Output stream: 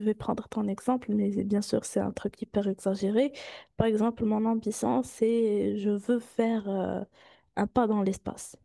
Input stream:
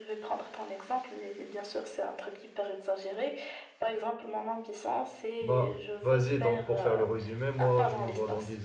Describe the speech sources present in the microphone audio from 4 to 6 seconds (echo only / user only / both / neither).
both